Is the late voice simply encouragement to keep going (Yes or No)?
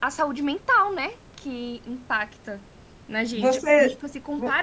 Yes